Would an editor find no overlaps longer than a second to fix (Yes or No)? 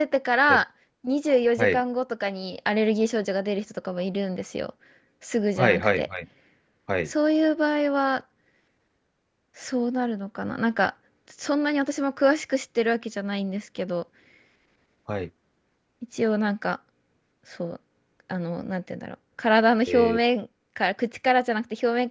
Yes